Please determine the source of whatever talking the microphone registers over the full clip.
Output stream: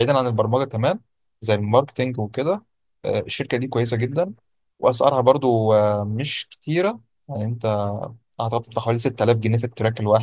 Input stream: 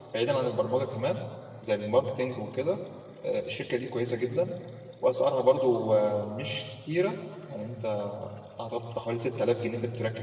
echo only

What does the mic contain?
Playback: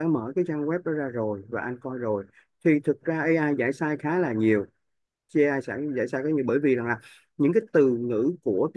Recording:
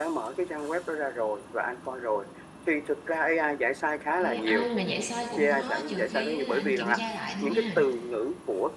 both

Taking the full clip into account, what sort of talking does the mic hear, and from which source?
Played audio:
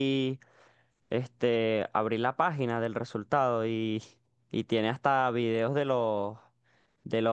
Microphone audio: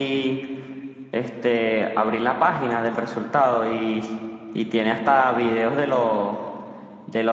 echo only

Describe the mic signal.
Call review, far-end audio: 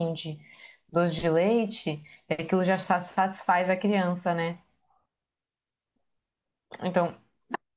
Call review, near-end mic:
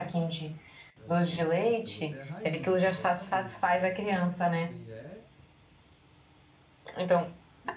both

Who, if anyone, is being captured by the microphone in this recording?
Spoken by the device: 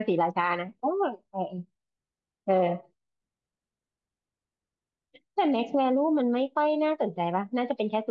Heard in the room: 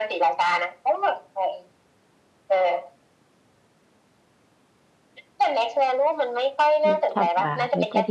both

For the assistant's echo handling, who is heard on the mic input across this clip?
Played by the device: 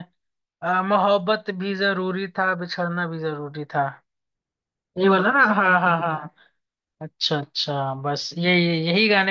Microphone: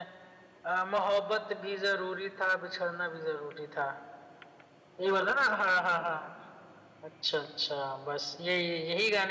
echo only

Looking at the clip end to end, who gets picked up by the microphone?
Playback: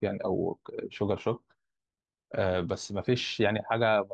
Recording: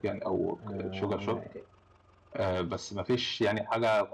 both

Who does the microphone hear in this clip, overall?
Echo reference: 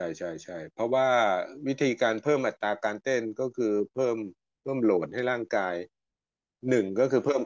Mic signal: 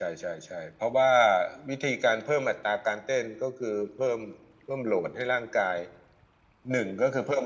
echo only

